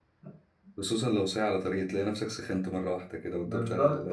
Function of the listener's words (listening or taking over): taking over